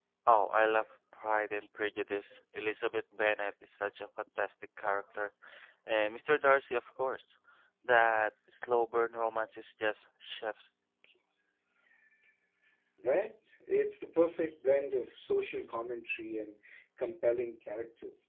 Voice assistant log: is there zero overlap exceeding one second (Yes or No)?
Yes